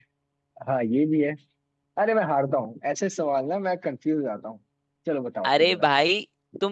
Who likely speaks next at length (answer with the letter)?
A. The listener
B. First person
A